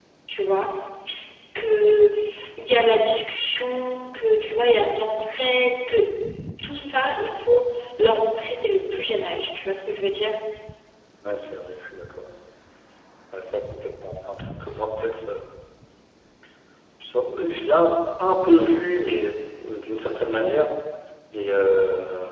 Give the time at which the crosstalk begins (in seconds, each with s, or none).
none